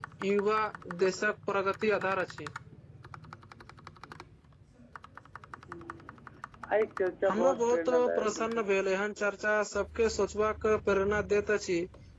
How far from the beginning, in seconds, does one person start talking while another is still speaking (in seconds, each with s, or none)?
7.3 s